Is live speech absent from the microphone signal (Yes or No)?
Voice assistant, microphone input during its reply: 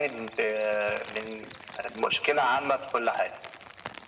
Yes